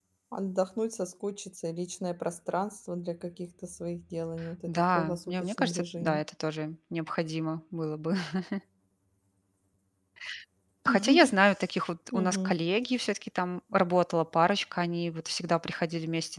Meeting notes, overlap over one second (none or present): present